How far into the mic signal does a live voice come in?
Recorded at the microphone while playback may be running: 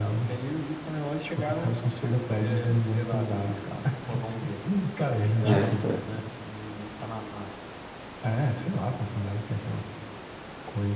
5 s

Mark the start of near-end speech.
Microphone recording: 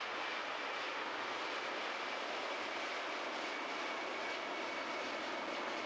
none

